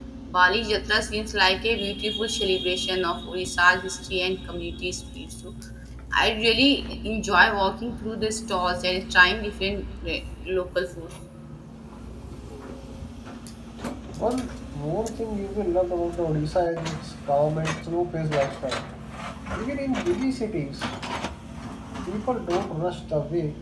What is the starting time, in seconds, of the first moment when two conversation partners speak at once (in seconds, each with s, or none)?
none